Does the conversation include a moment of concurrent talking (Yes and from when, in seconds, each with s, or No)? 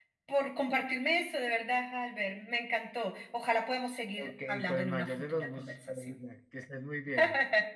Yes, from 4.2 s